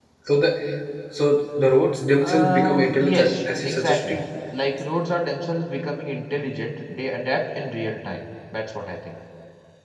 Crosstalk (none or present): present